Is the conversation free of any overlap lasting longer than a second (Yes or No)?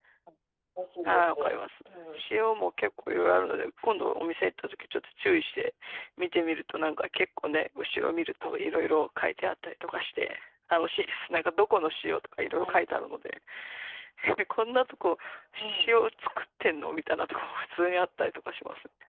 Yes